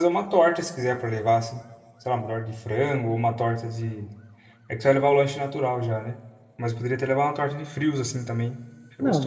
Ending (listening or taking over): taking over